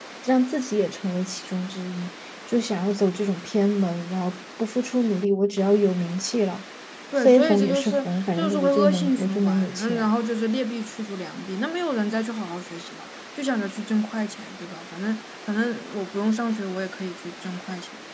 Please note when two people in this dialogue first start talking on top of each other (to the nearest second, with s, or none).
7 s